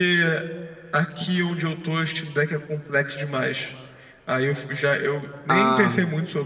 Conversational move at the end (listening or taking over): listening